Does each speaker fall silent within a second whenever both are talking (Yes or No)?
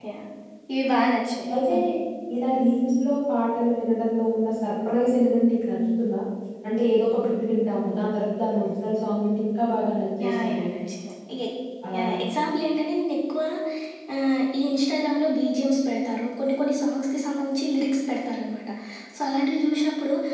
Yes